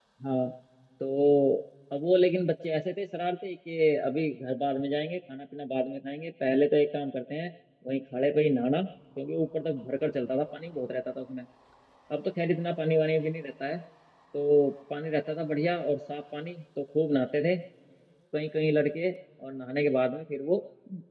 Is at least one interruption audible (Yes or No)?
No